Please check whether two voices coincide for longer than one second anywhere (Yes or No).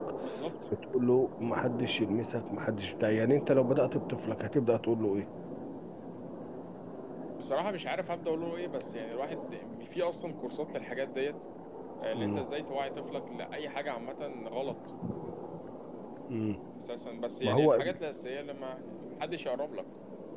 No